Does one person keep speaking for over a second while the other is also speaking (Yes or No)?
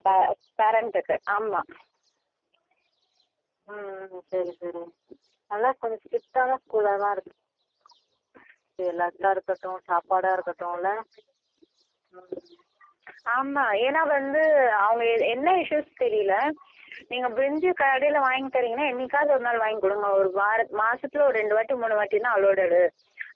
No